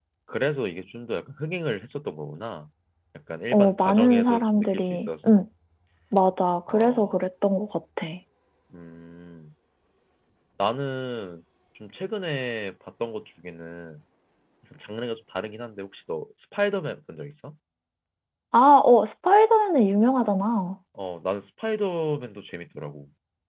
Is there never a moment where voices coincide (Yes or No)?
No